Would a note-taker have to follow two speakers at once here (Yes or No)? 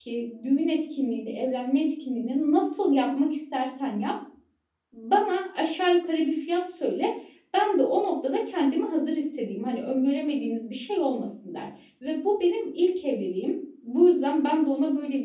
No